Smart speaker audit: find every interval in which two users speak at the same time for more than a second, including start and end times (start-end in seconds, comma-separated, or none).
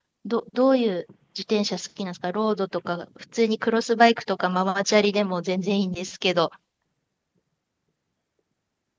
none